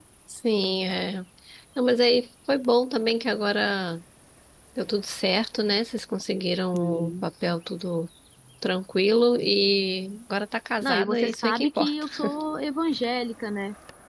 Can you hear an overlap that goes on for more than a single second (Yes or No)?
Yes